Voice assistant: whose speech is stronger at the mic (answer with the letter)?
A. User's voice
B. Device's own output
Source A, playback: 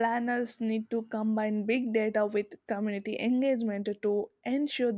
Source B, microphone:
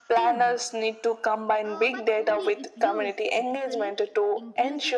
B